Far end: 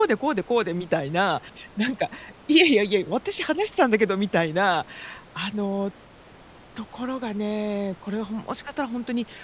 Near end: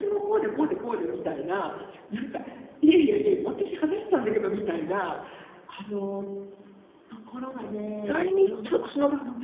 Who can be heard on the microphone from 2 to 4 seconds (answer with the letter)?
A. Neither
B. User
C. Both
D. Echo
D